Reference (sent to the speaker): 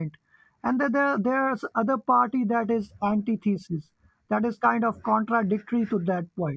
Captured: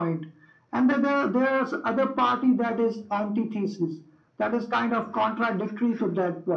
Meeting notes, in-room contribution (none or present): none